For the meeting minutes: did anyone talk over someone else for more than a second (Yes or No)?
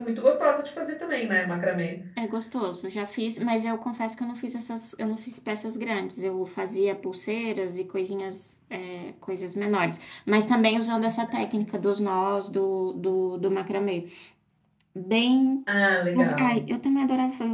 No